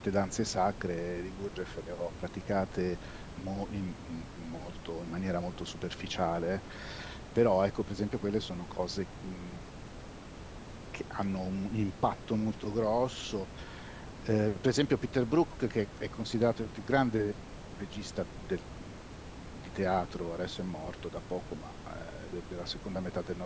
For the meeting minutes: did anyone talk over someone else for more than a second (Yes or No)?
No